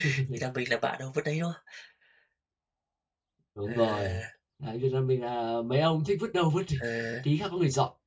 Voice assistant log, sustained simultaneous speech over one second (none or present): none